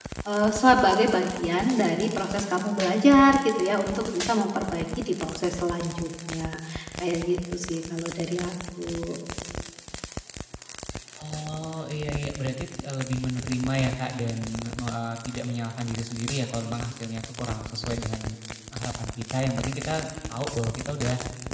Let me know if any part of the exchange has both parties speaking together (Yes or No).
No